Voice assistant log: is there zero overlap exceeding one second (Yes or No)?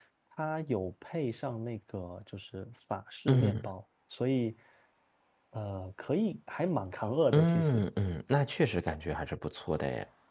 Yes